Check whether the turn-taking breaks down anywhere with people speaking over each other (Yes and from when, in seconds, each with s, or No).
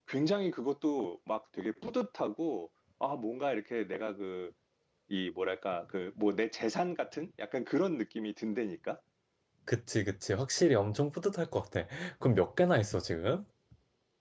No